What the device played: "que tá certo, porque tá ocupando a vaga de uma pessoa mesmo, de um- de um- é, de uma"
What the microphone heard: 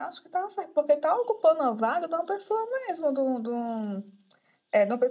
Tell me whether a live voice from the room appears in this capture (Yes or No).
No